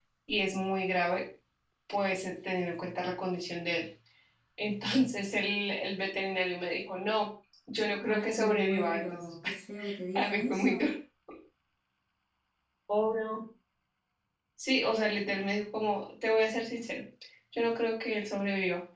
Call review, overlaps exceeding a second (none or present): present